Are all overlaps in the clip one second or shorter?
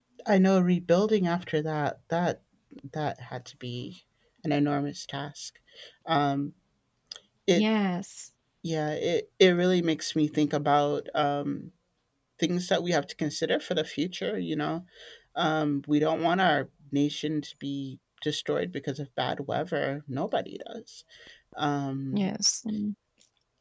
Yes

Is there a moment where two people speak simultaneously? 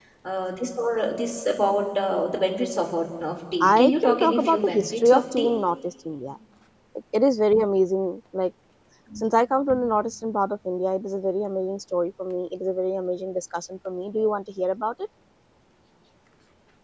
Yes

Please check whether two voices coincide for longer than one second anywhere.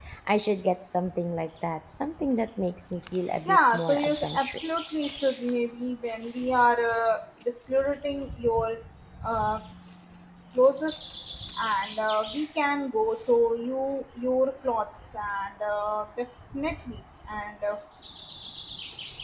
Yes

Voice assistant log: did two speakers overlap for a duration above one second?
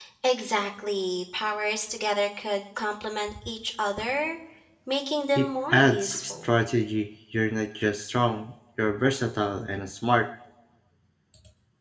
Yes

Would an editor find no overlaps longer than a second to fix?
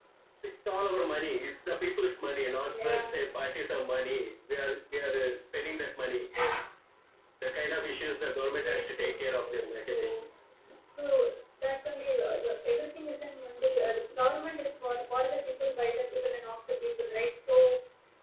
No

